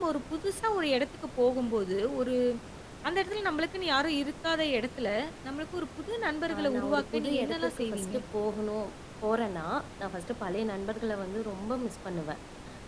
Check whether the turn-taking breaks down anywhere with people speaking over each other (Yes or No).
Yes